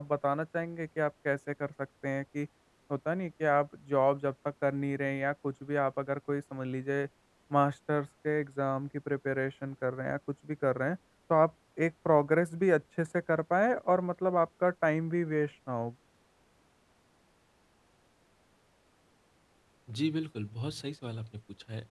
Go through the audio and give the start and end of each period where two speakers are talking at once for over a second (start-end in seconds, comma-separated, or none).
none